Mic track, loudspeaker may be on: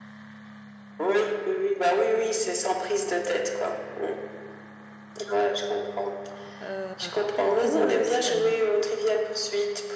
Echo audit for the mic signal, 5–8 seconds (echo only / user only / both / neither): both